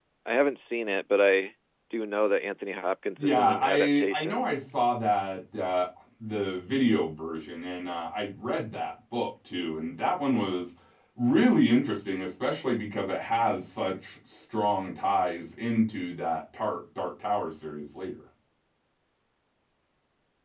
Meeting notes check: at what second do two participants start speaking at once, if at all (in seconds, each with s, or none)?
3.2 s